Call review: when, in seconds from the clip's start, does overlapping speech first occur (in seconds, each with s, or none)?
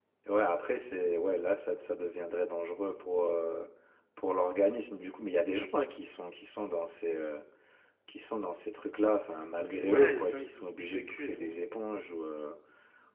9.8 s